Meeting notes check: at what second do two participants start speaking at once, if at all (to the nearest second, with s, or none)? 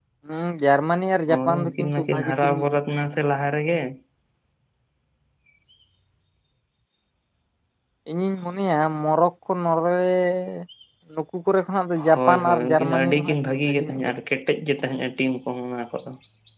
1 s